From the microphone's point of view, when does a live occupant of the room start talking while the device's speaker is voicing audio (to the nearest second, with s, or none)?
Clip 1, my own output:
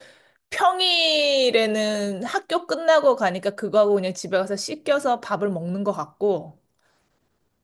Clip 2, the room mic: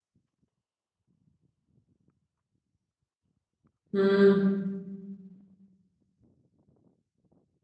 4 s